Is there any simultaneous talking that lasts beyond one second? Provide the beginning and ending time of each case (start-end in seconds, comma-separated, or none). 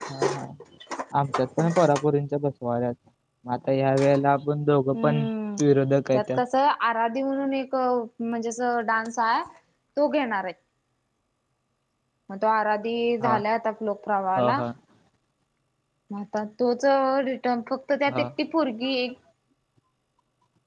none